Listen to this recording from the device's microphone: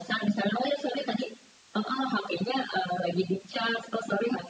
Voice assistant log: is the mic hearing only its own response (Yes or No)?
Yes